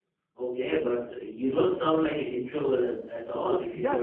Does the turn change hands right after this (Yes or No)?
Yes